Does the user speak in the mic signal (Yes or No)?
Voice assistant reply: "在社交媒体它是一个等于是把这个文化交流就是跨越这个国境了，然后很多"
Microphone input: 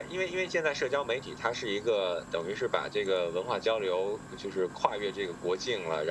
No